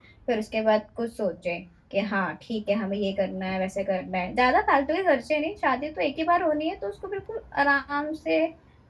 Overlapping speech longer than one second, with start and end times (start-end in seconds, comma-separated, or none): none